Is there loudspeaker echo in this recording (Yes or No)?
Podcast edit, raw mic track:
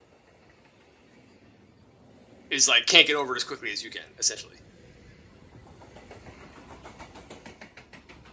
No